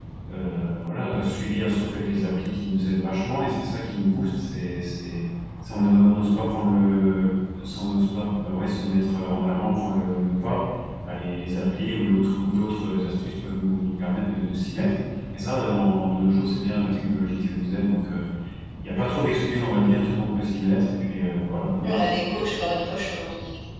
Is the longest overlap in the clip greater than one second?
No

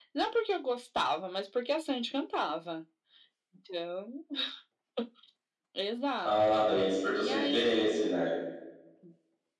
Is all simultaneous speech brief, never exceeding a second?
Yes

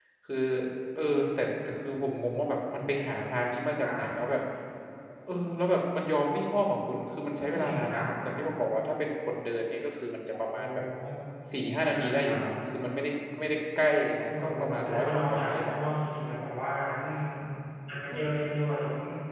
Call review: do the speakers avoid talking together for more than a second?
No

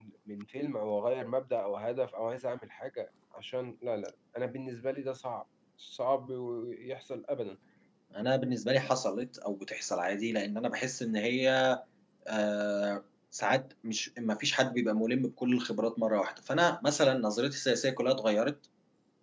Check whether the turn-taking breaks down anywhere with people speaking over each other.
No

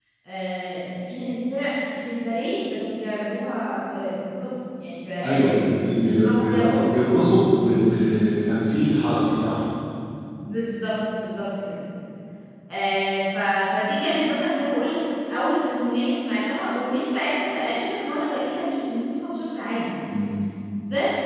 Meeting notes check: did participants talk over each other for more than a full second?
Yes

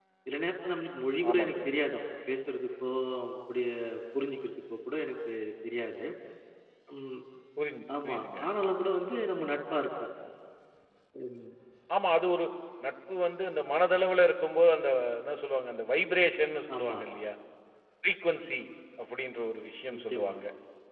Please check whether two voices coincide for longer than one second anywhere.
No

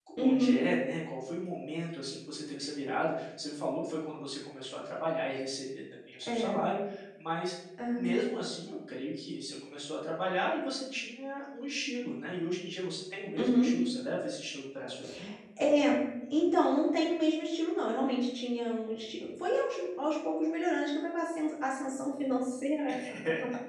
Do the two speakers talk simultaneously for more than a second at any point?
No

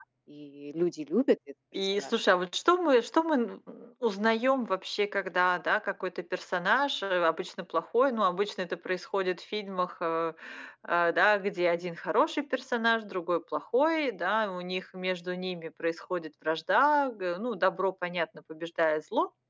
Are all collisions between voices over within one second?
Yes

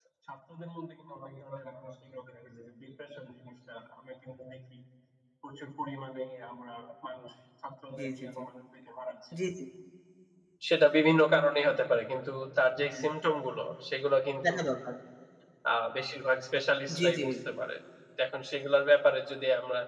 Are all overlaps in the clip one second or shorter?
Yes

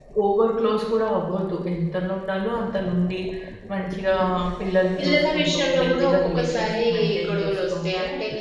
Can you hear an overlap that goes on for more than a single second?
Yes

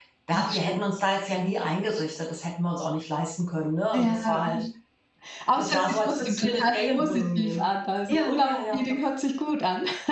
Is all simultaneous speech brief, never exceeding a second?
No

